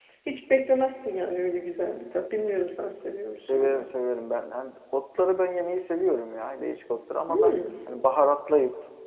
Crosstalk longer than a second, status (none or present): none